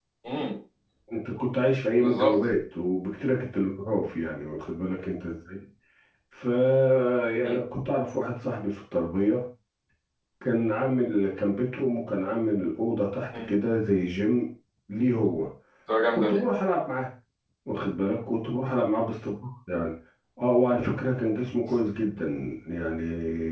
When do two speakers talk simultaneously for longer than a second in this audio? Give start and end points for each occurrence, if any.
none

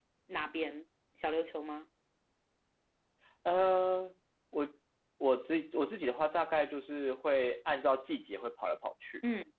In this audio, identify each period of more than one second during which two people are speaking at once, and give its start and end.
none

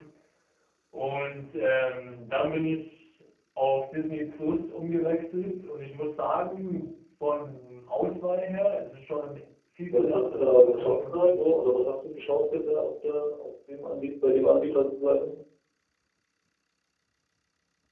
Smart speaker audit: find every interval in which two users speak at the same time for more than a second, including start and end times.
9.9-11.5

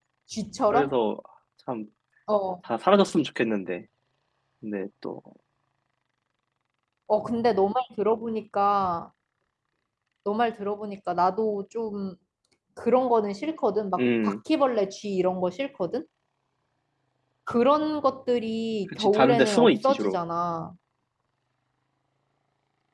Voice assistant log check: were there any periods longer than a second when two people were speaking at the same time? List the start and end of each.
18.9-20.2

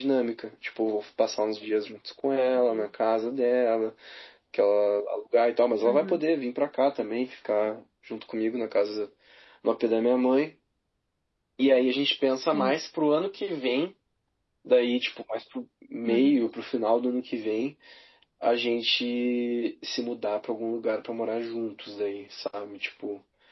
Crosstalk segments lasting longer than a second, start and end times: none

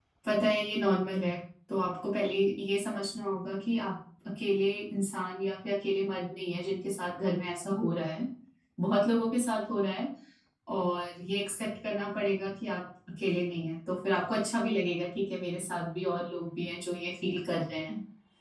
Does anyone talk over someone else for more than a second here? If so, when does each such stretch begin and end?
none

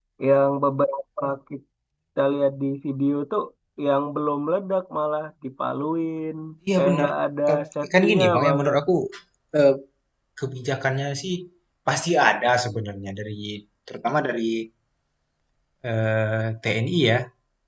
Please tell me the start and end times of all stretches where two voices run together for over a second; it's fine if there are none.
7.5-8.7

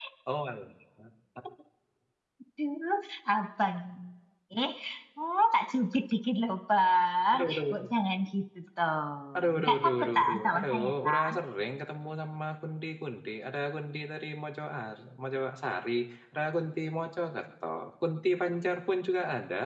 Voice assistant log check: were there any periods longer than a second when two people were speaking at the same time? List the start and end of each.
9.6-11.3

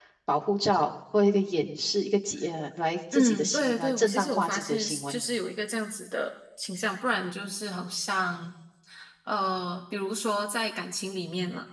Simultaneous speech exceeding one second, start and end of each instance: 3.1-5.2

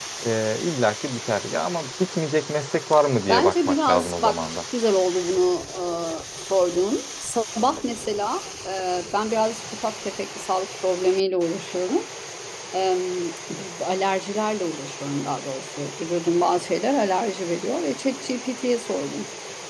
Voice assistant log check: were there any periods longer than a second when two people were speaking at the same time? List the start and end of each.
3.3-4.5

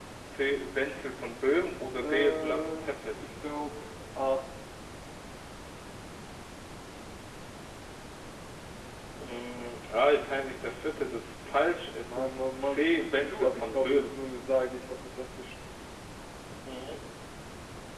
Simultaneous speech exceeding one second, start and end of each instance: 2.0-3.3, 12.0-14.1

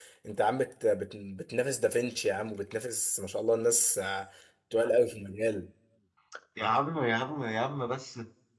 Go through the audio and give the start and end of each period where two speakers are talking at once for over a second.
none

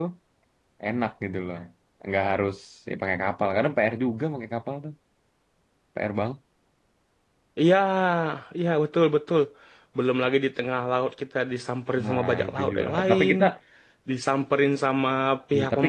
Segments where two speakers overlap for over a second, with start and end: 12.0-13.3

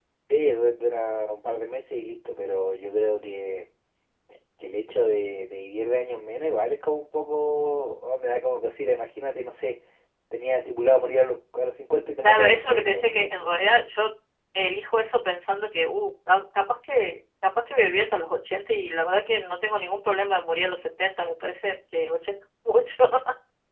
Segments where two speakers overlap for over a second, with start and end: 12.2-13.5

